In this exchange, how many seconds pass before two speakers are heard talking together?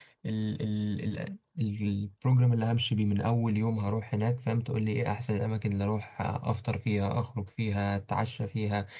none

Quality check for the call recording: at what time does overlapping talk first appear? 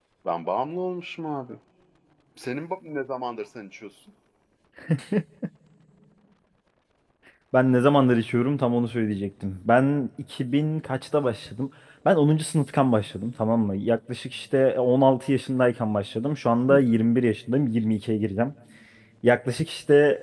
none

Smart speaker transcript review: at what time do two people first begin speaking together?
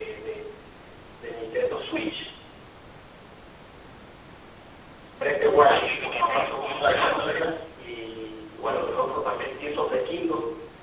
5.7 s

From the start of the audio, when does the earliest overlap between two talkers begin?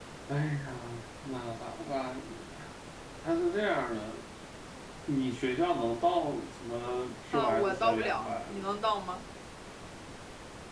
7.3 s

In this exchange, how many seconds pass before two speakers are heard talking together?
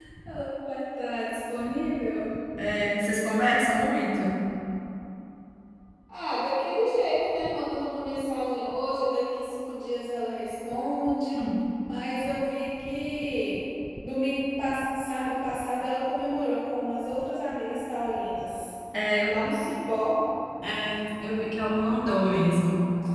none

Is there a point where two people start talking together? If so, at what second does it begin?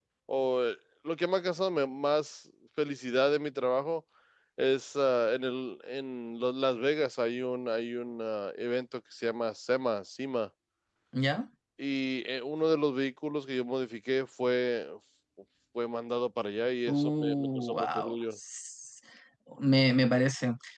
16.9 s

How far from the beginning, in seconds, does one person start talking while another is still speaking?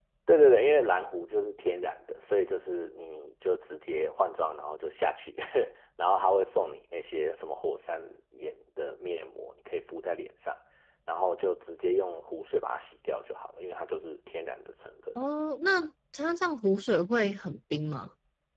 none

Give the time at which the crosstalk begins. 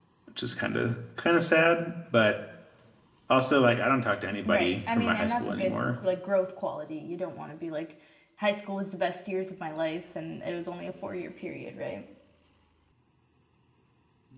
4.5 s

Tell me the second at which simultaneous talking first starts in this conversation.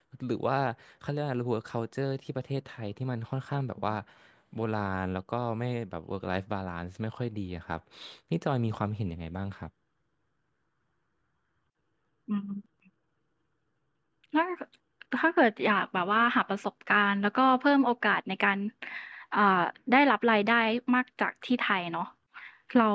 none

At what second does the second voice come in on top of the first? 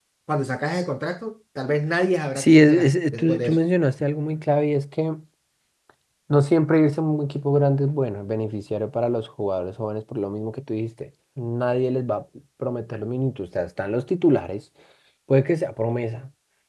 2.4 s

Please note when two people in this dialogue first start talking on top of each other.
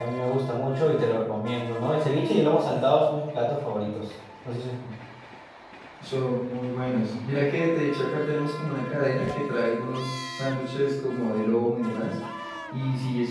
none

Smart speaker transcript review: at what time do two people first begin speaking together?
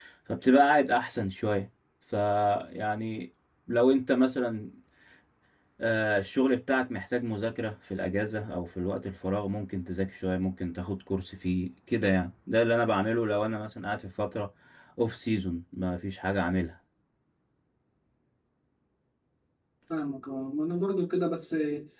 none

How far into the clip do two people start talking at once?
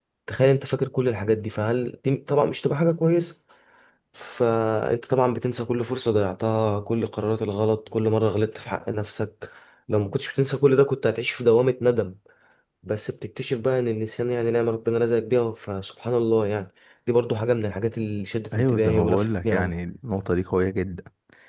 18.5 s

